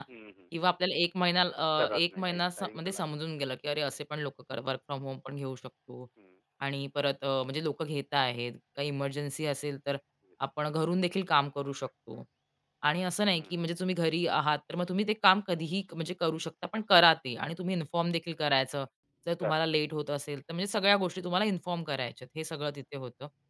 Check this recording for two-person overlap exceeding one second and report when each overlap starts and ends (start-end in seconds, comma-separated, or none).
1.8-3.0